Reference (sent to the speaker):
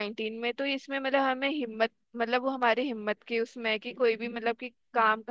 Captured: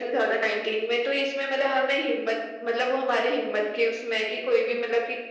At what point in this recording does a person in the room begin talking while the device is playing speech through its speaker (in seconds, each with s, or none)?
none